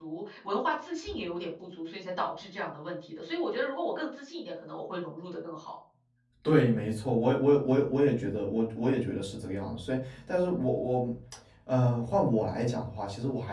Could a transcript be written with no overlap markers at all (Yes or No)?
Yes